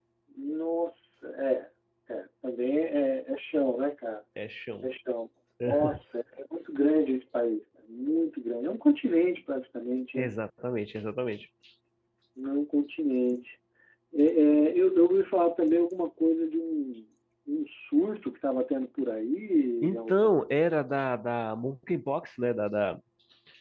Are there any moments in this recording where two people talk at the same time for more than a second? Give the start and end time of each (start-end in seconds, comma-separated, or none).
none